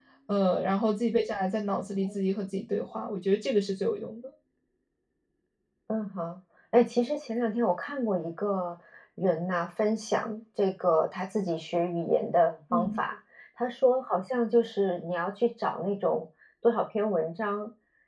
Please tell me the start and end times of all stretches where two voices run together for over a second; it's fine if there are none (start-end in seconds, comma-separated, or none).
none